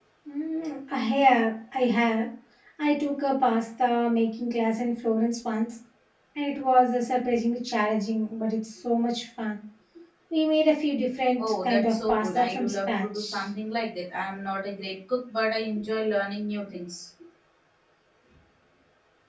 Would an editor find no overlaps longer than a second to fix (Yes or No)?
No